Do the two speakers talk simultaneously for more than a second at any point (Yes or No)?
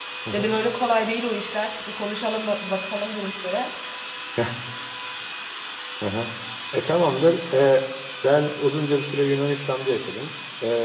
No